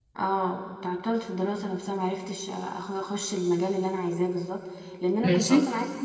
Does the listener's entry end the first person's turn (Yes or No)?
No